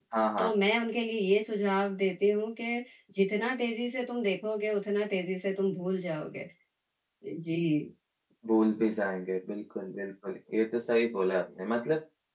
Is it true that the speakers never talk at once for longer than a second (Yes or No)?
Yes